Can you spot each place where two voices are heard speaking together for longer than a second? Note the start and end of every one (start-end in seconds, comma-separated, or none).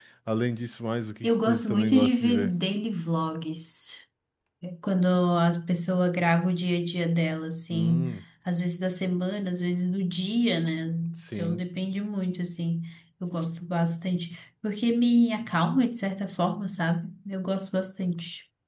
1.2-2.5